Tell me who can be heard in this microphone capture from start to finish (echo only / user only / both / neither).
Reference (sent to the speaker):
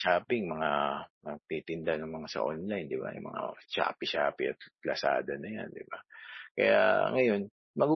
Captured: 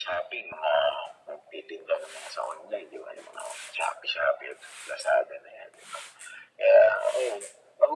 echo only